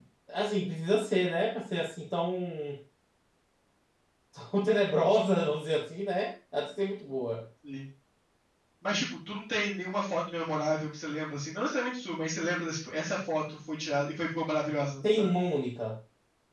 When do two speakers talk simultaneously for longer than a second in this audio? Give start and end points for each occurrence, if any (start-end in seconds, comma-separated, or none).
none